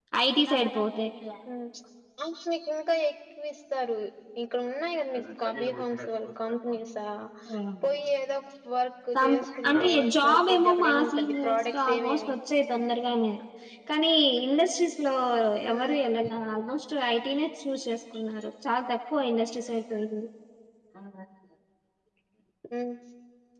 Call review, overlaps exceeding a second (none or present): present